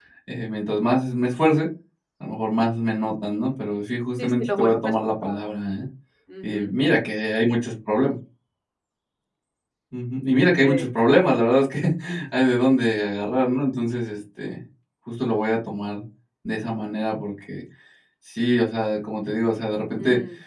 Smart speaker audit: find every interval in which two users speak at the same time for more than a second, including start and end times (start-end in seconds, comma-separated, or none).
4.2-5.4